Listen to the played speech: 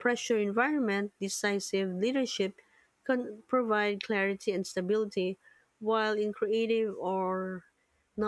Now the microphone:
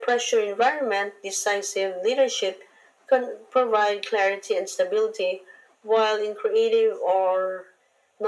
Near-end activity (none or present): none